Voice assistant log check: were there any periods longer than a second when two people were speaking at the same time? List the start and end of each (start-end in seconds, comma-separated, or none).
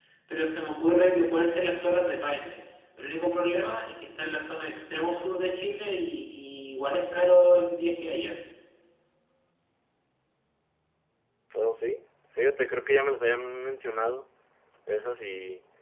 none